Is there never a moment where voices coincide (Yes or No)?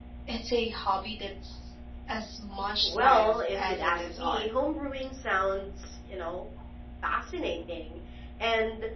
No